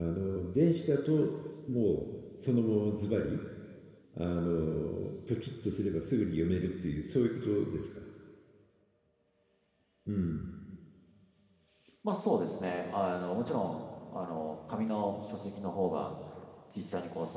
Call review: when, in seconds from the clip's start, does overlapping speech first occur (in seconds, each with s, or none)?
none